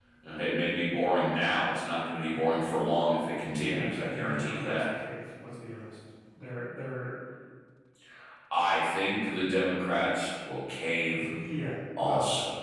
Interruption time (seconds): 3.6 s

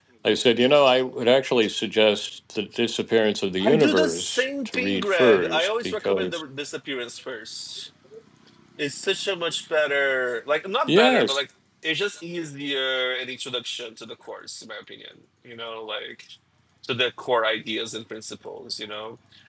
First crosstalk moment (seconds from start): 3.6 s

